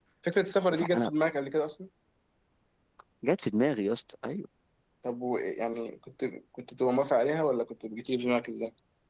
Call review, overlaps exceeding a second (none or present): none